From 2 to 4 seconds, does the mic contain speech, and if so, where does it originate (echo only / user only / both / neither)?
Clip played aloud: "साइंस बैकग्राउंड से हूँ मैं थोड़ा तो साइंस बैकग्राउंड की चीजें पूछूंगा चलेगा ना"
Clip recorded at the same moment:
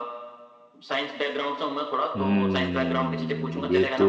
both